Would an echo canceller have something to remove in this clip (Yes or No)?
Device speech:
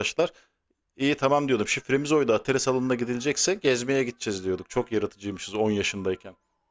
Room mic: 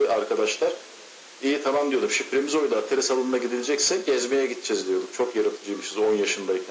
Yes